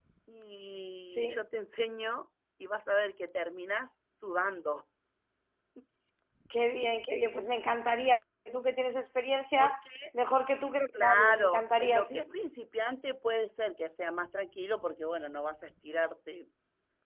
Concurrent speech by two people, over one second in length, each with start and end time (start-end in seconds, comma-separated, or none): 10.9-12.2